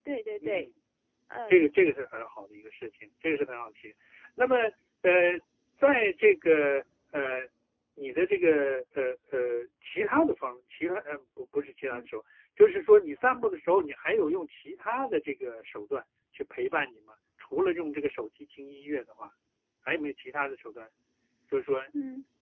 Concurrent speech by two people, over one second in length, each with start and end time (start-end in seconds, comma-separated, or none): none